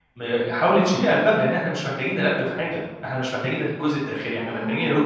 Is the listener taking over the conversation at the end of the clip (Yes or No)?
Yes